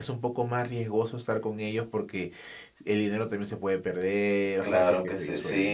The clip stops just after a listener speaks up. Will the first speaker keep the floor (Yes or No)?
No